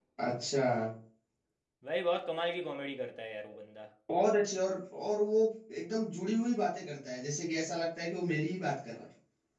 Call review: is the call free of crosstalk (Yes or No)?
Yes